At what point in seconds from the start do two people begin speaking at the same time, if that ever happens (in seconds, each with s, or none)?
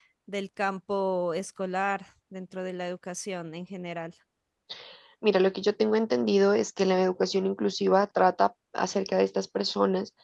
none